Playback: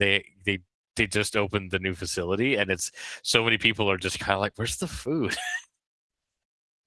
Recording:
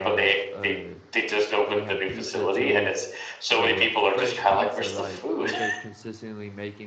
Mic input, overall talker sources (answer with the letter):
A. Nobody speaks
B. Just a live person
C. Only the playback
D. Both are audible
D